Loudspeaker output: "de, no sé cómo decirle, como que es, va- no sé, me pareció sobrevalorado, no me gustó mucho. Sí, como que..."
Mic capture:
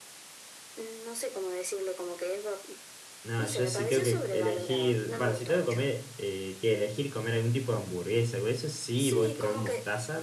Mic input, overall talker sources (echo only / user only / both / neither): both